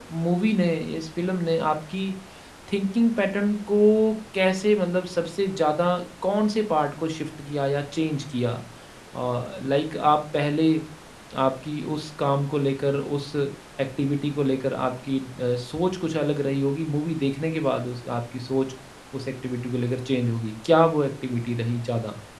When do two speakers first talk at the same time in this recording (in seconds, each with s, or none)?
none